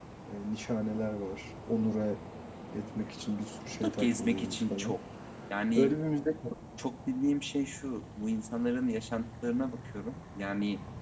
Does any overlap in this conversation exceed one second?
Yes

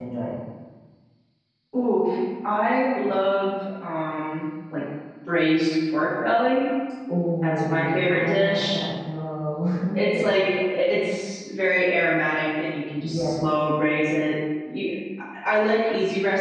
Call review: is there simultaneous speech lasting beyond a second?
Yes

